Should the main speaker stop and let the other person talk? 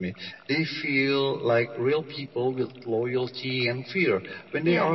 No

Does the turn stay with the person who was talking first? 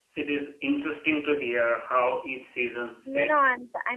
No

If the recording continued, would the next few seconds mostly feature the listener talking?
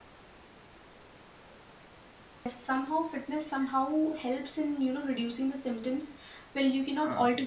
No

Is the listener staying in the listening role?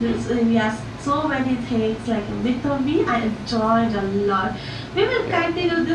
Yes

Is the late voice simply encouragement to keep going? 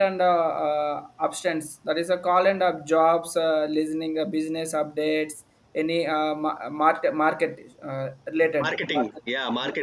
No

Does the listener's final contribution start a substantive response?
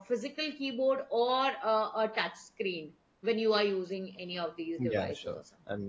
Yes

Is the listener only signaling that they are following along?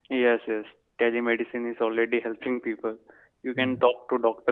Yes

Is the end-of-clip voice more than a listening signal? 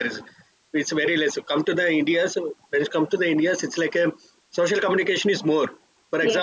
No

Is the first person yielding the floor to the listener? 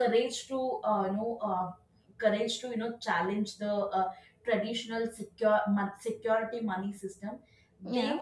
No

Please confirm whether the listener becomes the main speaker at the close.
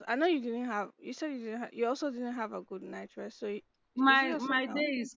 Yes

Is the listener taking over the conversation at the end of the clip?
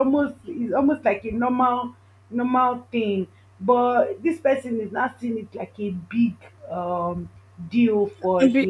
Yes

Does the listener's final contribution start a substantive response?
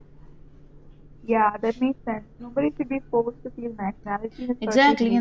Yes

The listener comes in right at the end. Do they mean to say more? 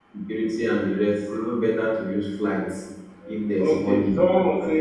Yes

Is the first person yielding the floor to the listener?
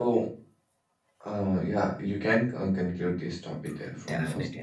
Yes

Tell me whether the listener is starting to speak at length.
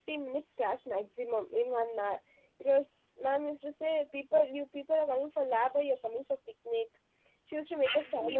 Yes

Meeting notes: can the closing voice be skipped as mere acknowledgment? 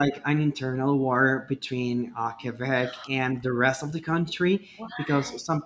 Yes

